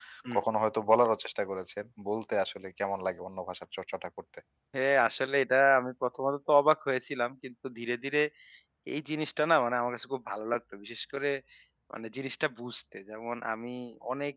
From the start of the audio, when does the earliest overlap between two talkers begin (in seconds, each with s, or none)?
none